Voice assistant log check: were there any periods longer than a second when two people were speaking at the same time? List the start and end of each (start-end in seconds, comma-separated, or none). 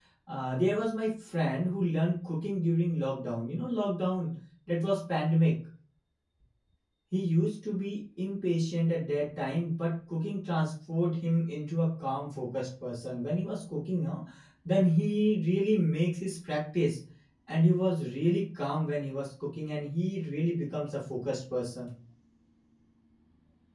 none